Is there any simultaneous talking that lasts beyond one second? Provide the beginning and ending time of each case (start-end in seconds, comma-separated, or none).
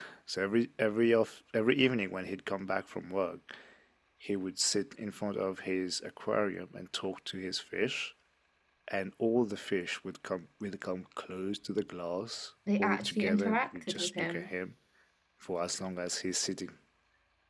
12.8-14.5